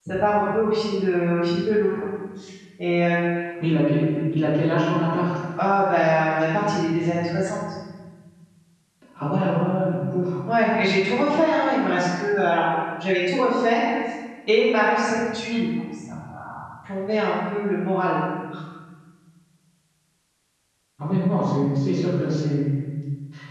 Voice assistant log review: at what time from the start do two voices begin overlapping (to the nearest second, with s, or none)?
none